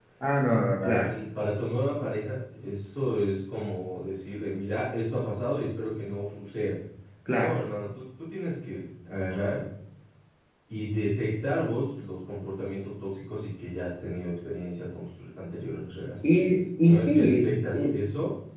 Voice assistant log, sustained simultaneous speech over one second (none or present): present